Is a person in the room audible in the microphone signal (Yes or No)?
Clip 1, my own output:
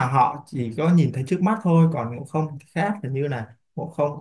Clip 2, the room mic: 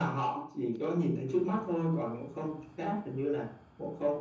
No